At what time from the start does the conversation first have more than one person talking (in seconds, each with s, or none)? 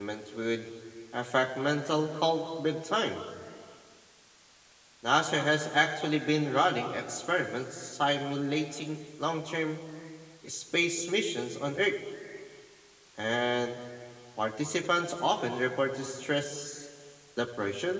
none